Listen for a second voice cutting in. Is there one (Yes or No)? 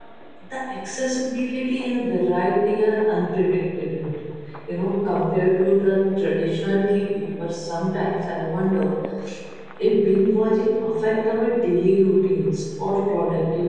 No